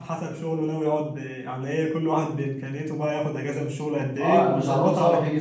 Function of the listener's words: taking over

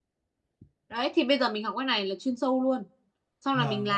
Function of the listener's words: taking over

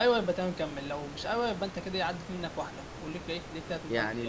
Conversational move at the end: taking over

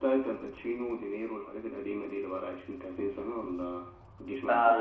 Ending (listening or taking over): taking over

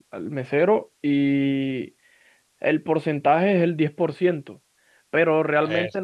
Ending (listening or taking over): listening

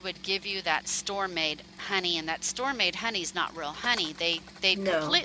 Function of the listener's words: listening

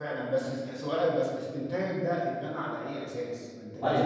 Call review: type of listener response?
listening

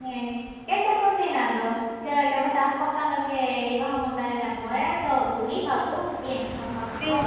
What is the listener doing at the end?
taking over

